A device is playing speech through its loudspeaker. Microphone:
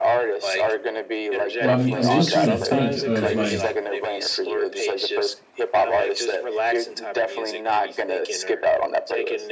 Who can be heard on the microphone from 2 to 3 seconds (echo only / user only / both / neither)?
both